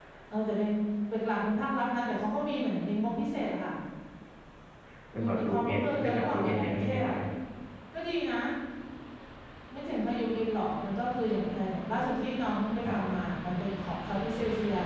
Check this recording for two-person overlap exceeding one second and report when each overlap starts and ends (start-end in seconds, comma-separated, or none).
5.1-7.1